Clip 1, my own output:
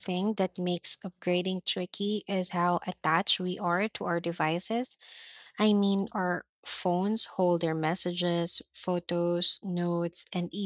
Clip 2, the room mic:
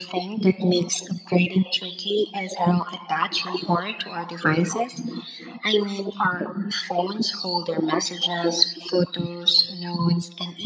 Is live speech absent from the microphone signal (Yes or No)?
Yes